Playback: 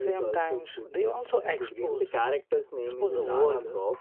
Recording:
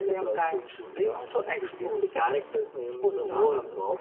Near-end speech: none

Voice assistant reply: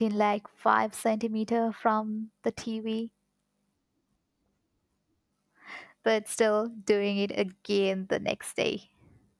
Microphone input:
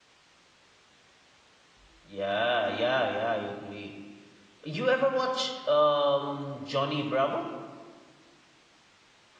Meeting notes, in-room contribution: present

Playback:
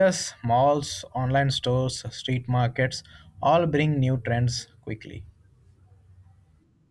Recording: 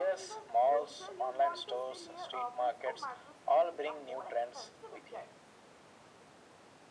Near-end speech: present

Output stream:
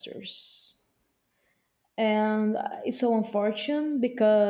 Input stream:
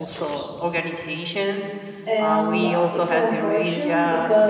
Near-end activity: present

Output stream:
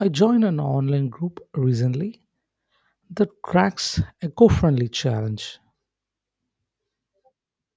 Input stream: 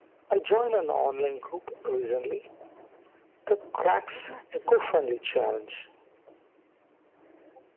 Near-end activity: present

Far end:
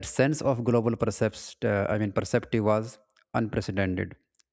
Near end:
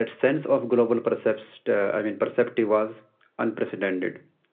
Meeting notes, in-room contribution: none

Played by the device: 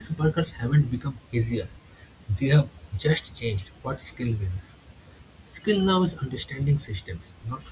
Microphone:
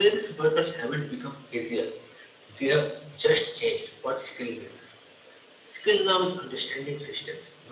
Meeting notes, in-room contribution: none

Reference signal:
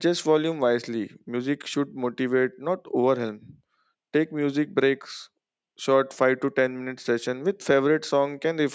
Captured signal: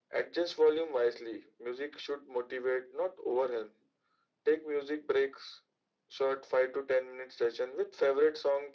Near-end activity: none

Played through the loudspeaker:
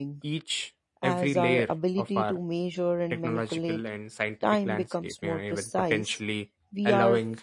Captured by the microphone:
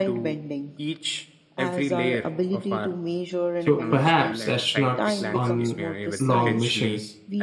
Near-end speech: present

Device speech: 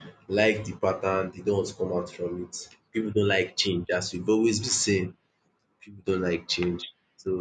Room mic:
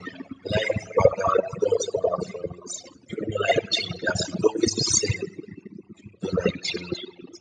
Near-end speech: none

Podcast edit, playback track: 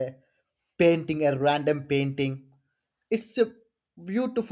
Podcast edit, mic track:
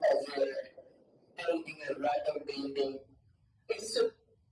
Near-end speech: none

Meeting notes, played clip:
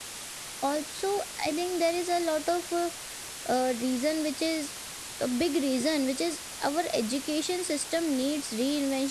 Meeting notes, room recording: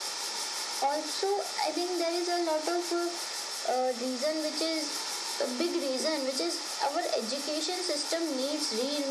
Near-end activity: none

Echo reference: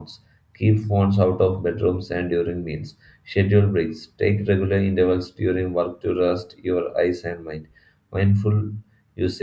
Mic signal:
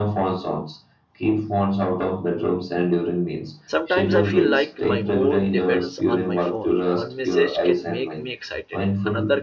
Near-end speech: present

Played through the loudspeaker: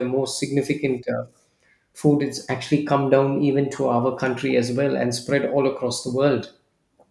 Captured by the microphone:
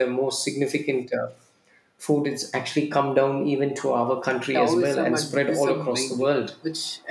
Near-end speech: present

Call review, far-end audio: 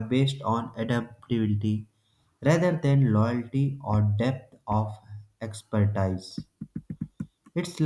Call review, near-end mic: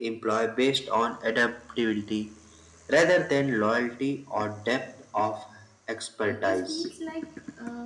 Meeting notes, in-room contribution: present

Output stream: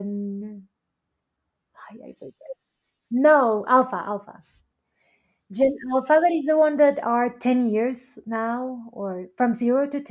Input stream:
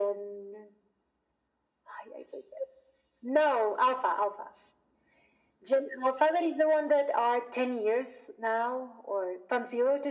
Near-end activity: none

